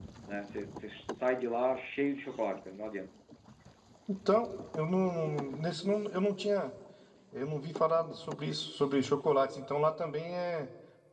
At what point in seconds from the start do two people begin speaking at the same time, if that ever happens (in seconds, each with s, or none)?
none